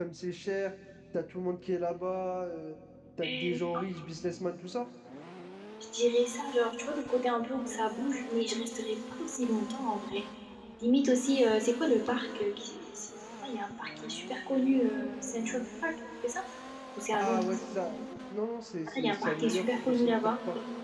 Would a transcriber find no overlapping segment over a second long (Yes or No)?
No